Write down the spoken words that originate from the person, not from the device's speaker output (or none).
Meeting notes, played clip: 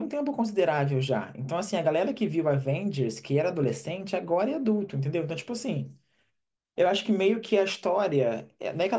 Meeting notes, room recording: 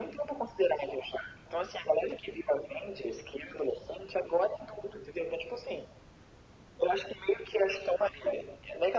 none